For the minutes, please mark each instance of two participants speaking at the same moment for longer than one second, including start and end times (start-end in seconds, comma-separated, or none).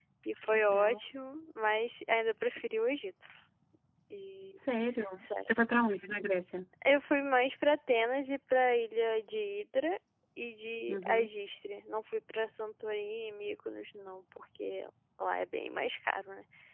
none